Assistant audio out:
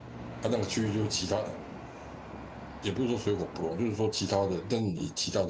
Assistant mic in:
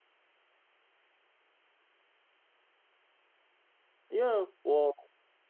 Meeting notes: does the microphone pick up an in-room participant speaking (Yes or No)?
Yes